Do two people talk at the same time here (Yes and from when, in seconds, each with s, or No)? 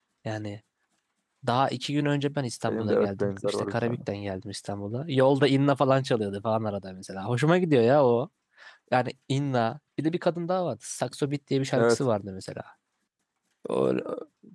Yes, from 2.7 s